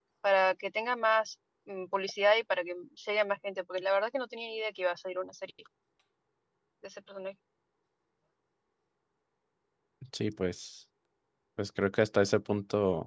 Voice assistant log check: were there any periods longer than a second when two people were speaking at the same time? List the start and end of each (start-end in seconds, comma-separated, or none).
none